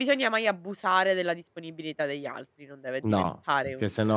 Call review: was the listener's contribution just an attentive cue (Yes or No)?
No